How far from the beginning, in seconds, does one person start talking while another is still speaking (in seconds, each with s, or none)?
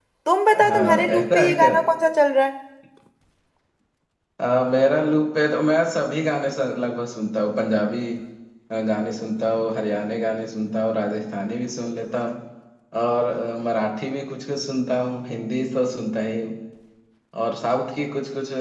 0.5 s